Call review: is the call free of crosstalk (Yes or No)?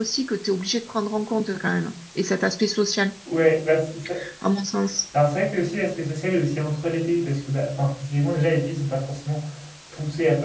Yes